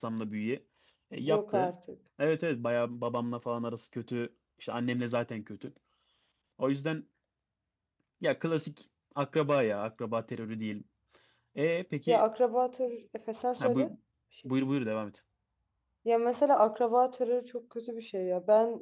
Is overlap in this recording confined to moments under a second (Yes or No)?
Yes